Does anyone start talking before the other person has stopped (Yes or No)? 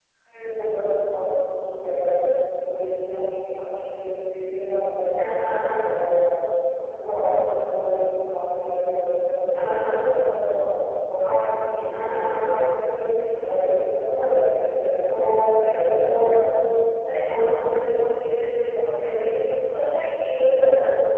Yes